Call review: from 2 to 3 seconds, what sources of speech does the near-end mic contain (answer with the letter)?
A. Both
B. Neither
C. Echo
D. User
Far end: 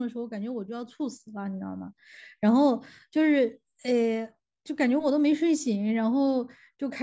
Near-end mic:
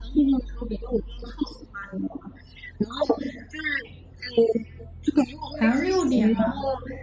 C